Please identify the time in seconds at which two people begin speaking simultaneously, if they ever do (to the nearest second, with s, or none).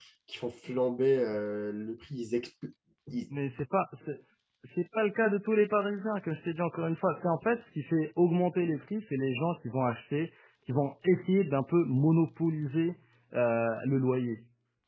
none